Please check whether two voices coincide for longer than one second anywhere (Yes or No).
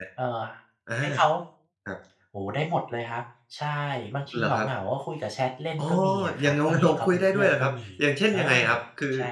Yes